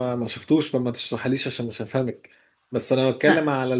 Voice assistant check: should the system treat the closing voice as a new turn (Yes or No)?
No